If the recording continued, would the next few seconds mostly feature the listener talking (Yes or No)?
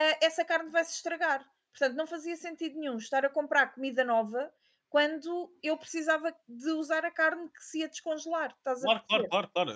Yes